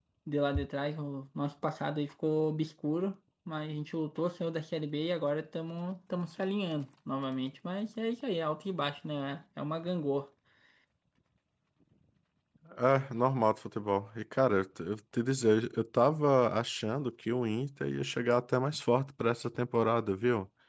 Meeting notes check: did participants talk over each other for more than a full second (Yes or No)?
No